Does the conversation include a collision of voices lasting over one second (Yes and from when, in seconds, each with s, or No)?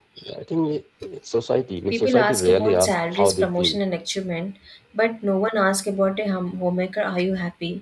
Yes, from 1.9 s